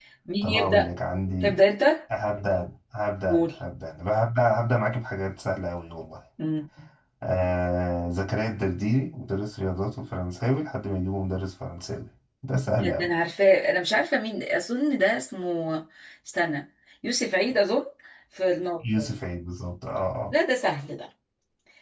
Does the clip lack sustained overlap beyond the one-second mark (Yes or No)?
Yes